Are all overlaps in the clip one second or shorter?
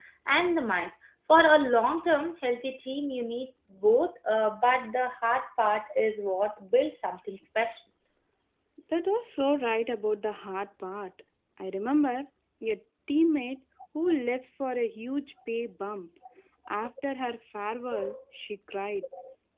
Yes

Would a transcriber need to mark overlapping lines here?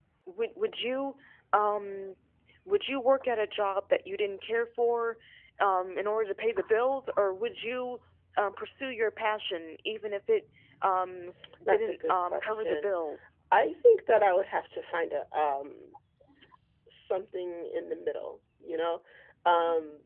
Yes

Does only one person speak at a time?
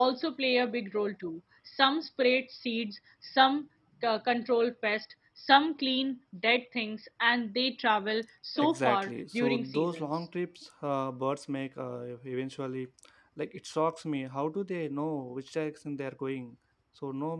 No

